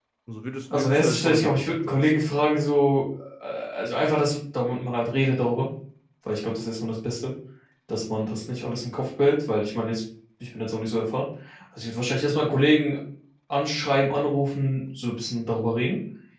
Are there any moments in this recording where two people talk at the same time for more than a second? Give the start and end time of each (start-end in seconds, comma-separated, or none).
0.7-2.2